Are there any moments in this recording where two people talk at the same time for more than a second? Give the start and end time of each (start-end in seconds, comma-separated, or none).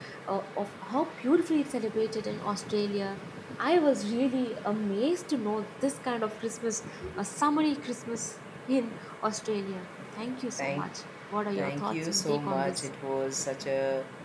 11.6-12.9